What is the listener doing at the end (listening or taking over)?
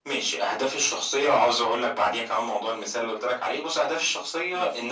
listening